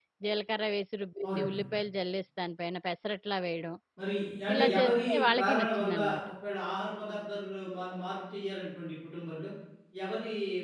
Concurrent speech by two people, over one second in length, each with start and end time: 4.5-6.2

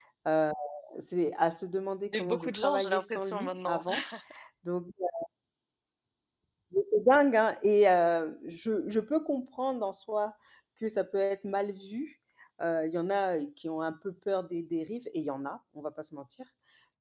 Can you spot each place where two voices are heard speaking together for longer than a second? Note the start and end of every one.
2.1-3.8

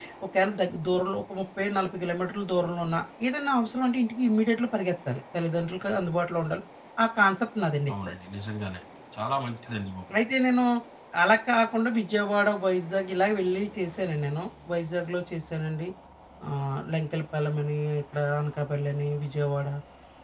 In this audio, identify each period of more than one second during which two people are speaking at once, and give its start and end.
none

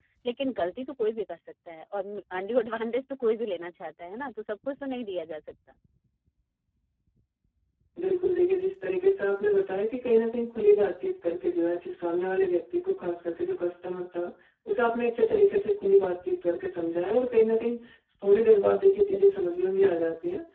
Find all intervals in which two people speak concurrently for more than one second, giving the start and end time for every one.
none

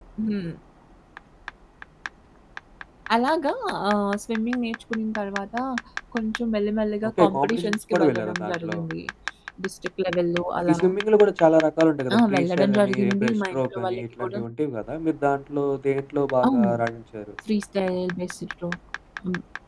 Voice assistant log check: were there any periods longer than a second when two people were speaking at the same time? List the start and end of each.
7.1-8.8, 12.2-14.4

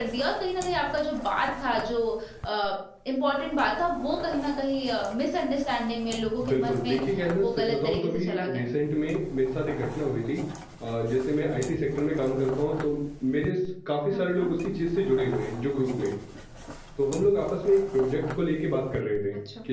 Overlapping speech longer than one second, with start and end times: 7.4-8.6

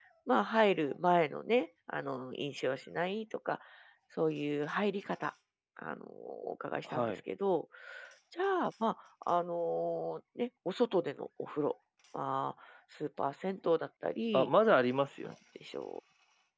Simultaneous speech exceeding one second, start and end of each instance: none

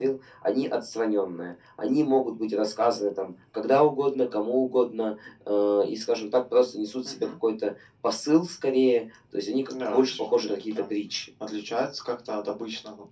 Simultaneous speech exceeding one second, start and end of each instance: 9.7-10.9

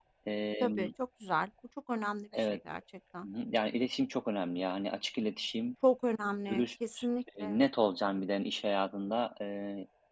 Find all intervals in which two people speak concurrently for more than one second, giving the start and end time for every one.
none

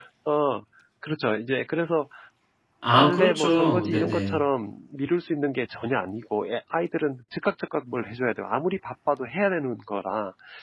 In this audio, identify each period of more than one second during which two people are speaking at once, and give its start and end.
2.9-4.4

